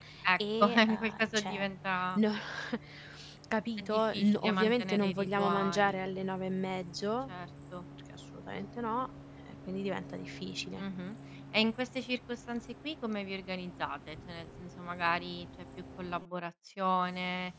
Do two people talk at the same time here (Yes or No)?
Yes